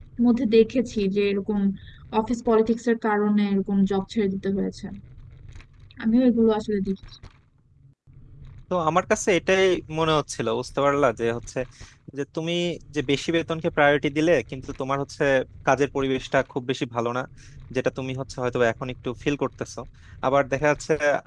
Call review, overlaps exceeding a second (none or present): none